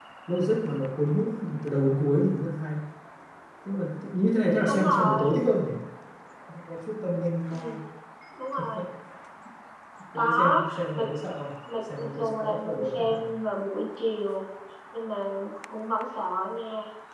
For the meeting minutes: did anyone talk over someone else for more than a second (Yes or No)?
Yes